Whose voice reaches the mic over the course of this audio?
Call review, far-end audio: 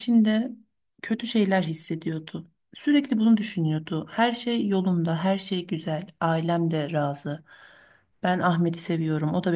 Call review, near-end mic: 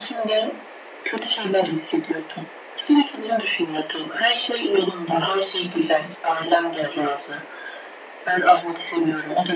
echo only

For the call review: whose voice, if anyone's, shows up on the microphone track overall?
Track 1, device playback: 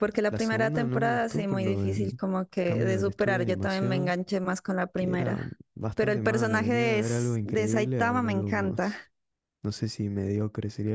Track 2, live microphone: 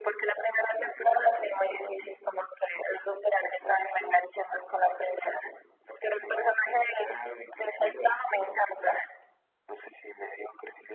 echo only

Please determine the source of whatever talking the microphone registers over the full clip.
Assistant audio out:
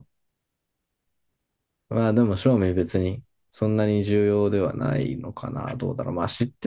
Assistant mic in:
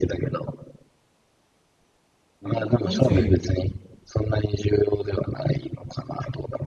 both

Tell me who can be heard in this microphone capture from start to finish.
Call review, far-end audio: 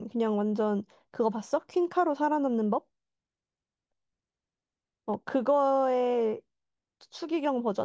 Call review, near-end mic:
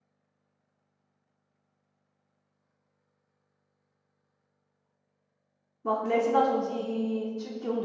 user only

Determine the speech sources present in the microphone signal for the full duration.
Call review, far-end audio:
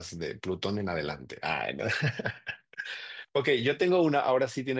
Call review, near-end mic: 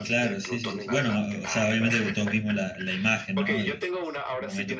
both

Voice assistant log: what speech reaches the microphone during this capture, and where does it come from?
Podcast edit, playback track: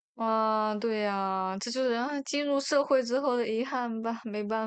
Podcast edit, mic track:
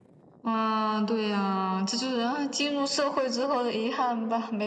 echo only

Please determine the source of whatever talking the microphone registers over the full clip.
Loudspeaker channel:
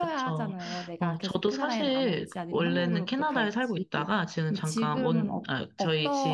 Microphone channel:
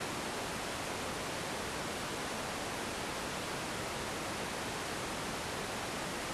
neither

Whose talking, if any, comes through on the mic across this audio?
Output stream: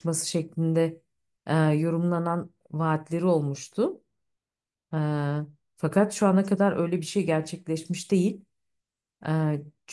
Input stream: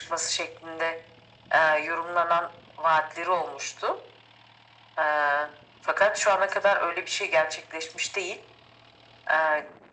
echo only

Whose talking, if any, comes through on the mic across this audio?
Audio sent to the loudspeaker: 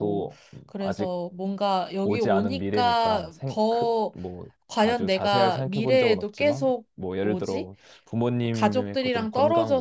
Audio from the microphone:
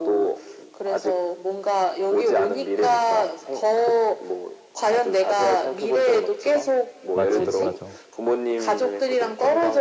both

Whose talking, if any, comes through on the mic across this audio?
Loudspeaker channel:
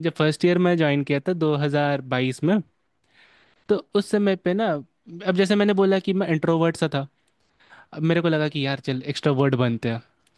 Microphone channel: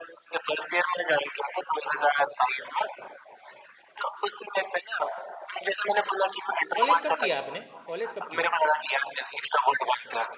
both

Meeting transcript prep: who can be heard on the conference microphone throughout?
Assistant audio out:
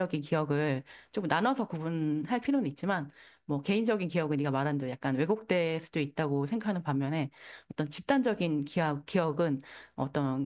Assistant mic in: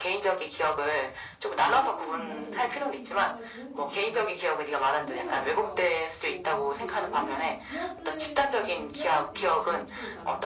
both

